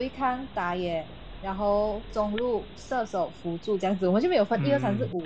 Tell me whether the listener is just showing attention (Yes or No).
No